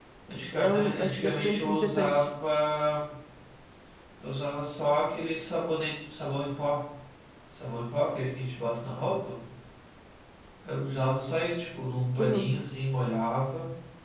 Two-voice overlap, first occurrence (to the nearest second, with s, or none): 1 s